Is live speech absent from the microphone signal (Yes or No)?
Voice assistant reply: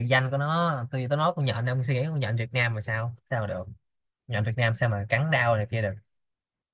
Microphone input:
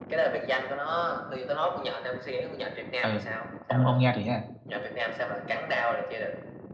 No